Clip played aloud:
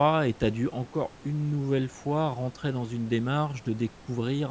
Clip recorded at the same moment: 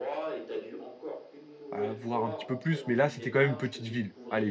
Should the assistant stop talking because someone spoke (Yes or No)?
Yes